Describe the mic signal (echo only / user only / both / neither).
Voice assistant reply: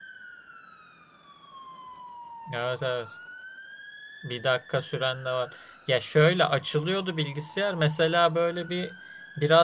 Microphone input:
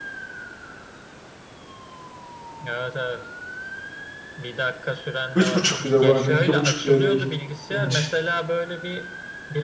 both